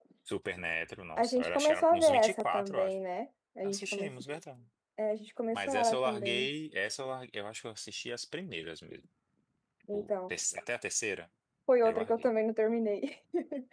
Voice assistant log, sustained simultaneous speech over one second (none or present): present